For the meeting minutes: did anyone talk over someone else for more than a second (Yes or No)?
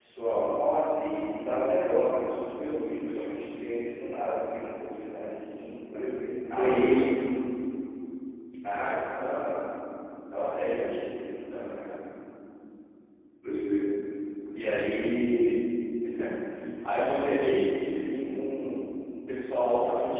No